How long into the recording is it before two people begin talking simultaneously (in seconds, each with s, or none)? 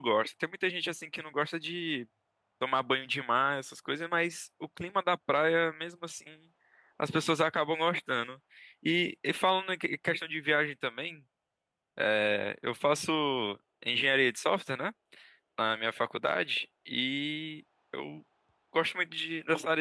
none